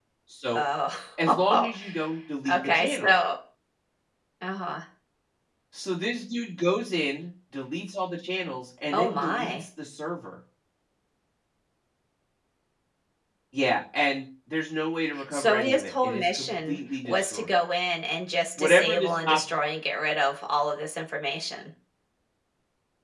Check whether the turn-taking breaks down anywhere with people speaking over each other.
Yes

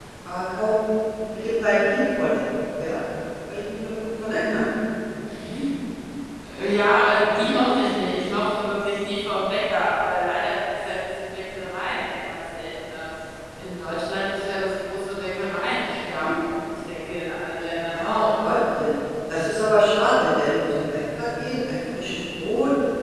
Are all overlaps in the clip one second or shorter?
Yes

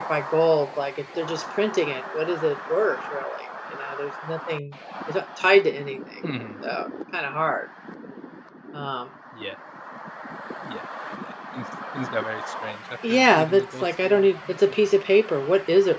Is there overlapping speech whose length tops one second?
Yes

